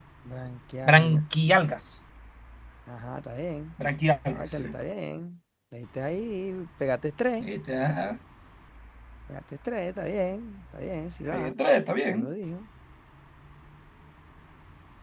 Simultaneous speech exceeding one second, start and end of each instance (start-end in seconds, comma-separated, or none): none